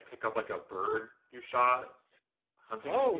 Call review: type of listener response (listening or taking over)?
taking over